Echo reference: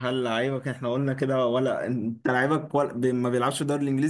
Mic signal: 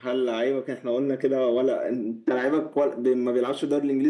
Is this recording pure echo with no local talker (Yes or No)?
Yes